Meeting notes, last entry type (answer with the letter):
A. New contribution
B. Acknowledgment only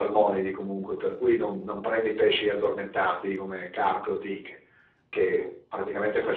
B